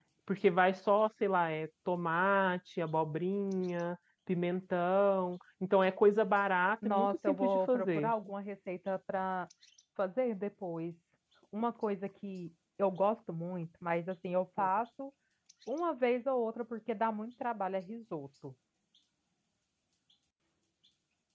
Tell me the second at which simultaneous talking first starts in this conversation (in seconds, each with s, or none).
6.8 s